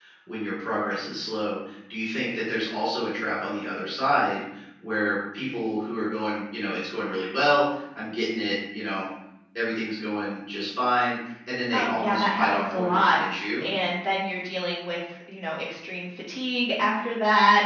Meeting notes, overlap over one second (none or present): present